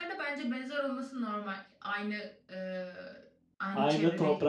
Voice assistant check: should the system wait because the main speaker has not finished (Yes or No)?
No